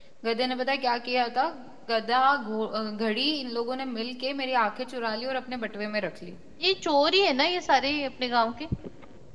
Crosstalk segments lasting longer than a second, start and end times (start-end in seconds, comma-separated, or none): none